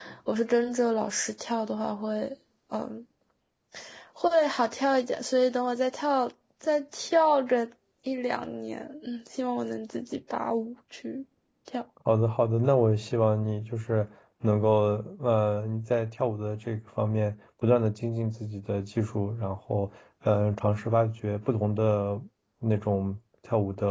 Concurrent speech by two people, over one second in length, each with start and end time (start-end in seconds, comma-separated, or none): none